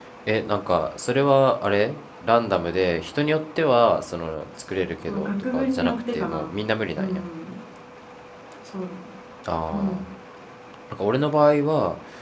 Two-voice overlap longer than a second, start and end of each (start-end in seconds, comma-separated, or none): 5.1-6.5